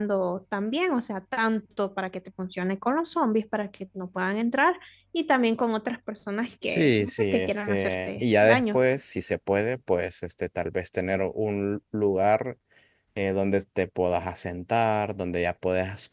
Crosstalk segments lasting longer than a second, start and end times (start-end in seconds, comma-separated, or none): 6.6-8.8